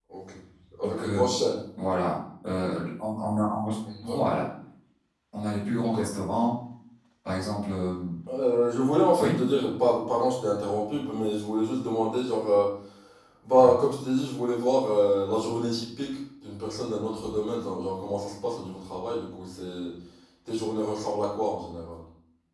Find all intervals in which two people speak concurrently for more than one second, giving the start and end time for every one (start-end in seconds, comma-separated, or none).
none